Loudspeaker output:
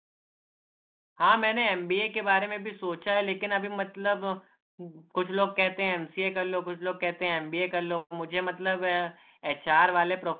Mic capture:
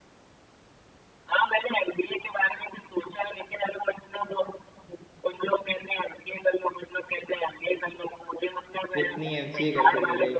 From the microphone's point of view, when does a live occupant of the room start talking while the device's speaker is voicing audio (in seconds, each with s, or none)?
9.0 s